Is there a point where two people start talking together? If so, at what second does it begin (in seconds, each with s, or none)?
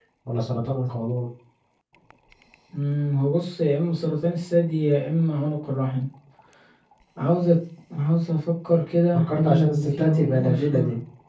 9.3 s